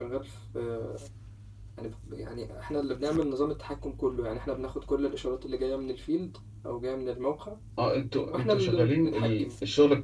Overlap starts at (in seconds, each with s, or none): 8.3 s